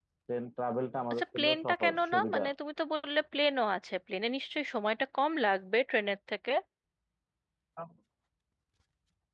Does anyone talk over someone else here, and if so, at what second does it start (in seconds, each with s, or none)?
1.1 s